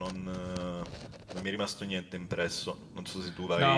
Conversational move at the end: taking over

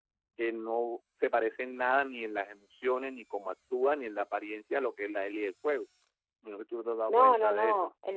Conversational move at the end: taking over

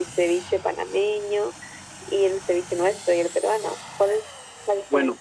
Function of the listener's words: taking over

